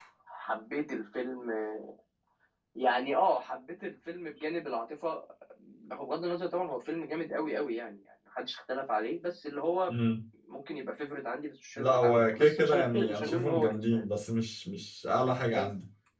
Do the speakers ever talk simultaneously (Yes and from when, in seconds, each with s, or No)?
Yes, from 11.8 s